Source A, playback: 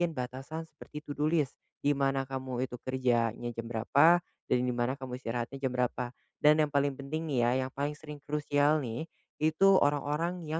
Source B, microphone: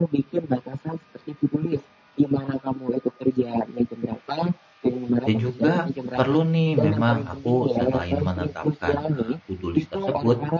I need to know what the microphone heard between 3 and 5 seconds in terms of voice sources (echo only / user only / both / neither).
echo only